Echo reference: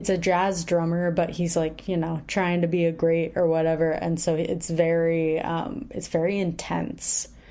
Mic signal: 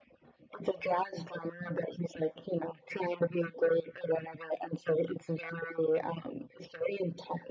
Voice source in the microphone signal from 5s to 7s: echo only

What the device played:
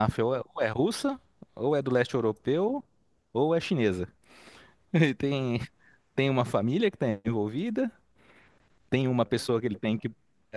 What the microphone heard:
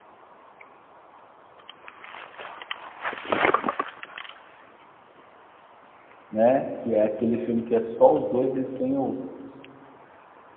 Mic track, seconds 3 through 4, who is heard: neither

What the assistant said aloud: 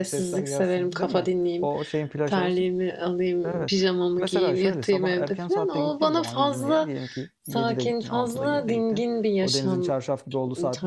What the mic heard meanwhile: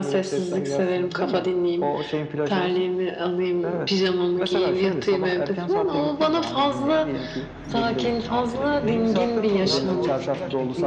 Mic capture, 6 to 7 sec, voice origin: echo only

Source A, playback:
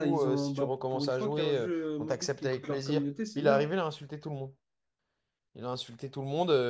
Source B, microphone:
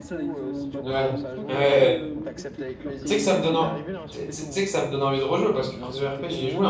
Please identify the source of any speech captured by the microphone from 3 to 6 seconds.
both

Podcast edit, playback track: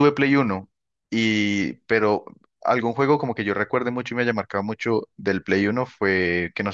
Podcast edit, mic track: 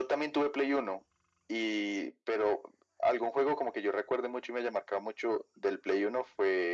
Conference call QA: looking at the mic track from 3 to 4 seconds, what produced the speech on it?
echo only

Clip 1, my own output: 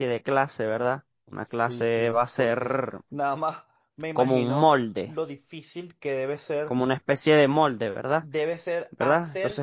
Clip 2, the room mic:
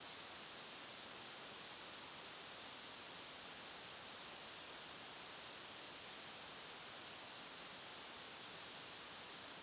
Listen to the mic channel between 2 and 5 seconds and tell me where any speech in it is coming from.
neither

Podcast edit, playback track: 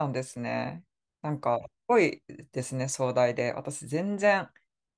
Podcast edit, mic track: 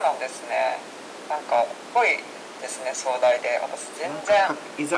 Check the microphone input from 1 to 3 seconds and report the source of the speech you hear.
echo only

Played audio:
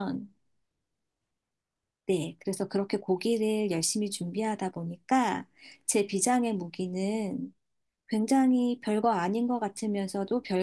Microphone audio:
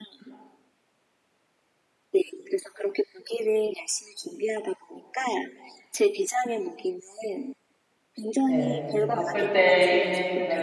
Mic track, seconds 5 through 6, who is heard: echo only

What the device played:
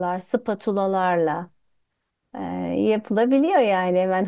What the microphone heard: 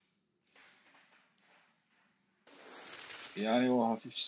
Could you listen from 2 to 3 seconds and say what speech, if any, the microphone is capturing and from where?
neither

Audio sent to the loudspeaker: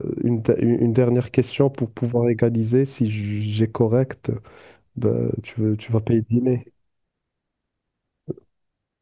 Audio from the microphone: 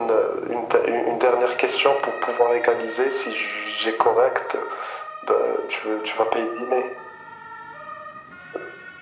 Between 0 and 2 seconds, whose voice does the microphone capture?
echo only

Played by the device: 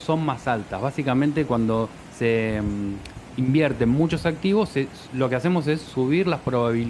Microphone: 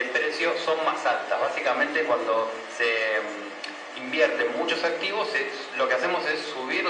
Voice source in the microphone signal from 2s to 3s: echo only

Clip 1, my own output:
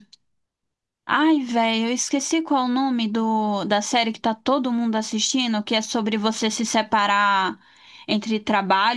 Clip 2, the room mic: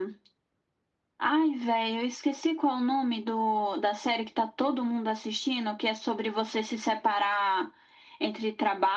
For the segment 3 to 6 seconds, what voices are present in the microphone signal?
echo only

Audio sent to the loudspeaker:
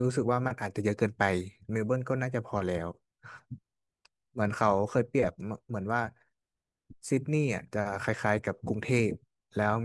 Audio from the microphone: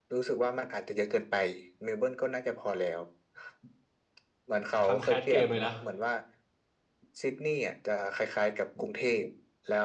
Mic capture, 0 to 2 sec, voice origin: echo only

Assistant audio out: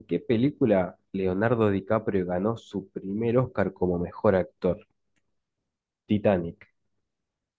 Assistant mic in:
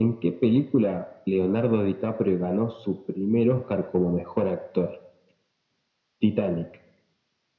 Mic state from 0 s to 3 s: echo only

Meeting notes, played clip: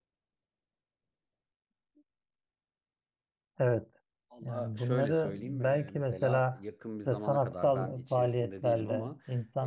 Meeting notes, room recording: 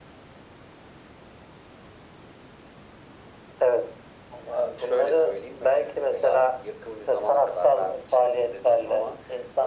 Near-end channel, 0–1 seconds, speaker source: neither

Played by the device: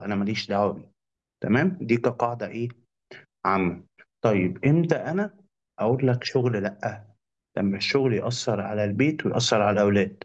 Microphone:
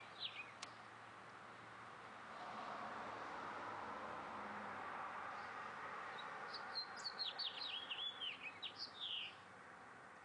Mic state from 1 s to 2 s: neither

